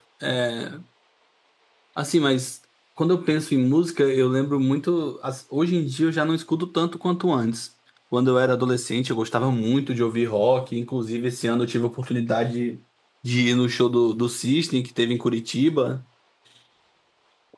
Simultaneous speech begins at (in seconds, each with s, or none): none